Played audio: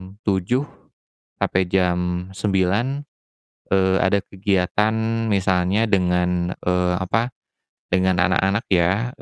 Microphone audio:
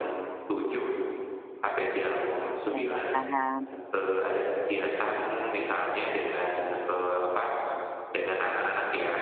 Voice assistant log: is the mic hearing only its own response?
No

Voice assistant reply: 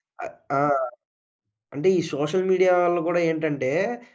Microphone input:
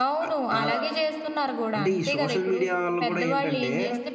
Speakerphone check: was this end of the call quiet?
No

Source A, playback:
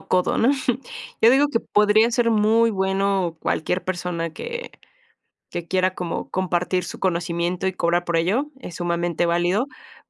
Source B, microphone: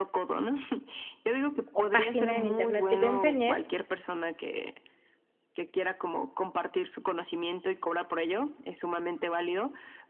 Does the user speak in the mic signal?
Yes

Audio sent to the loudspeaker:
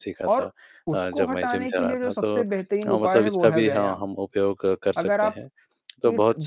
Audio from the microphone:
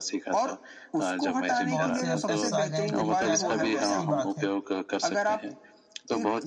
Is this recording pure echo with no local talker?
No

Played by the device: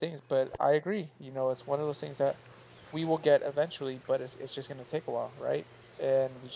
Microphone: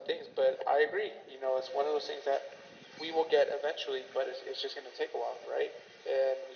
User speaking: No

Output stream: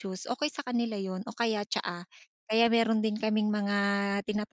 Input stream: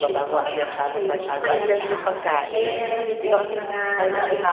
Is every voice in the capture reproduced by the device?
No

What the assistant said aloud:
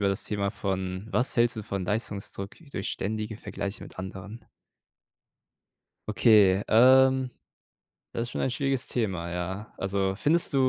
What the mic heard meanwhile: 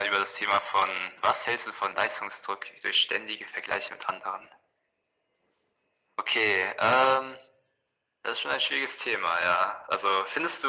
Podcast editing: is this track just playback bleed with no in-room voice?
Yes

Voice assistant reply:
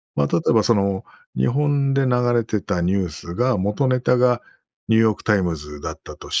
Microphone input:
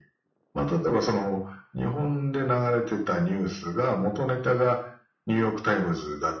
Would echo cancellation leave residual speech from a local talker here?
No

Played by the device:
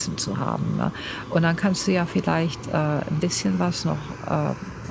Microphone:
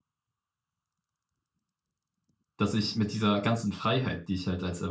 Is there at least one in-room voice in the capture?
Yes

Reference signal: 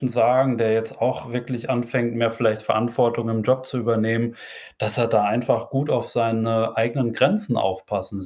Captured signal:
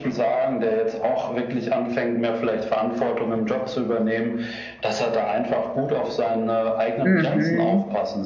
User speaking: Yes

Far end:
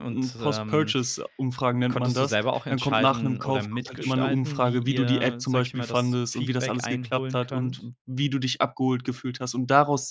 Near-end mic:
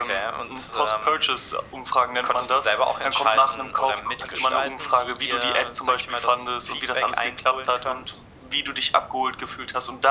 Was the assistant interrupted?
No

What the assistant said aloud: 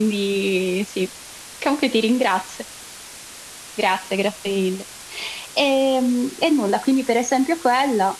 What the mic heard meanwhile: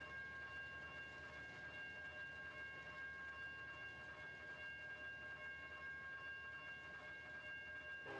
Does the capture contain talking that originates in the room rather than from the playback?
No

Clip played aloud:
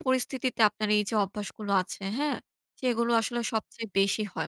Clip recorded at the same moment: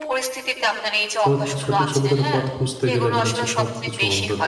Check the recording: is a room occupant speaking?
Yes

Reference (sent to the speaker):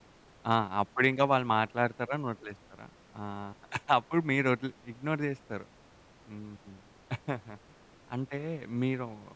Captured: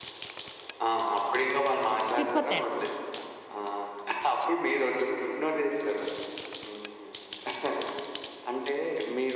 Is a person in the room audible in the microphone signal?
Yes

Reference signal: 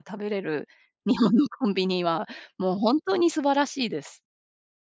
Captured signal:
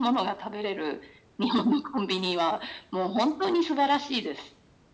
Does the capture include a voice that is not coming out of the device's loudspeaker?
No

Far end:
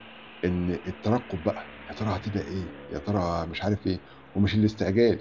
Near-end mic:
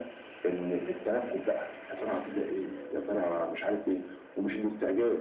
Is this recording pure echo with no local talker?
Yes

